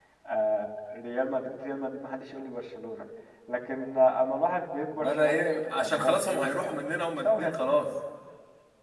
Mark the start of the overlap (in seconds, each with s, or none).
5.0 s